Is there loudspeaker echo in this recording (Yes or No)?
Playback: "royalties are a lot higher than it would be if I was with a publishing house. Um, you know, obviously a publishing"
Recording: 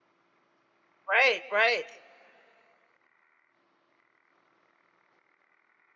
No